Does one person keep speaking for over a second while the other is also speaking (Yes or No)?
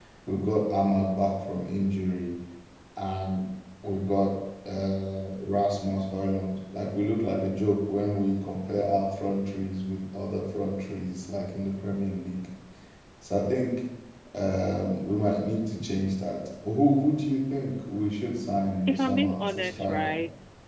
Yes